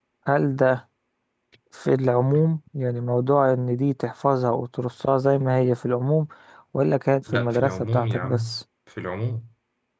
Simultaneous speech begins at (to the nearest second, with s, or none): 7 s